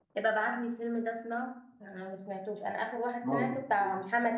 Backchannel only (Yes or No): Yes